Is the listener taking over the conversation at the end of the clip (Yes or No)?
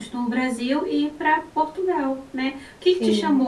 No